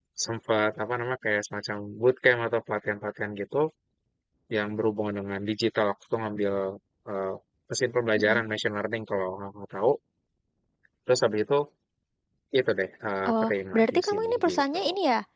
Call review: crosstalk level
present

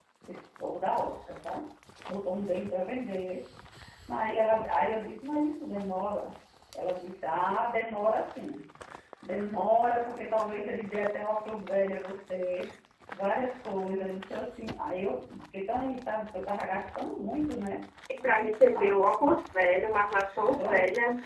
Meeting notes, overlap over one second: none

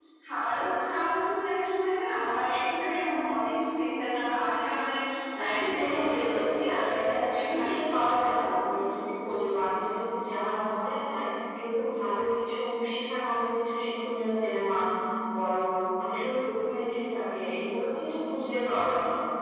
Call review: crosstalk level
present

